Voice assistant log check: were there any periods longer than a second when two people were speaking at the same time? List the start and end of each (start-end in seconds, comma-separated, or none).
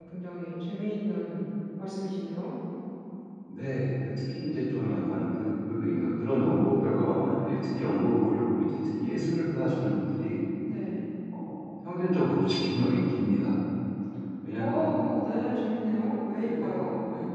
none